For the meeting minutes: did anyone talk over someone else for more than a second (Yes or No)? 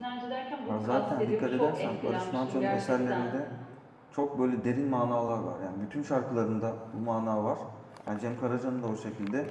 Yes